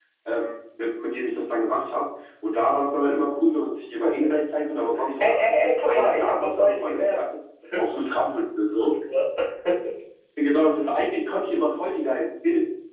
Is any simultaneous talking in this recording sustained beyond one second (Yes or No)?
Yes